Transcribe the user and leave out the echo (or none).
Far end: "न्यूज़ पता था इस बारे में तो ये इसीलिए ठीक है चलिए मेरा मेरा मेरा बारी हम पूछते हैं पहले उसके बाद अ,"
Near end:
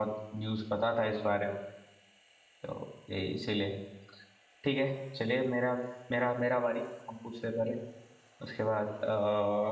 none